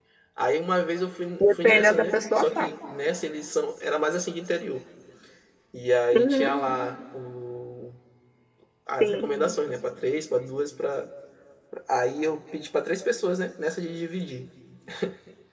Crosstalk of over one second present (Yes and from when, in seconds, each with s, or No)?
Yes, from 1.4 s